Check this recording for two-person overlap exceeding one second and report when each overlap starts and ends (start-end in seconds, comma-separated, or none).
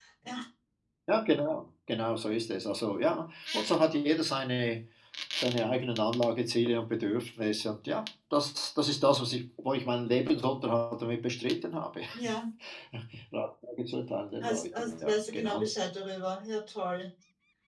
14.4-15.7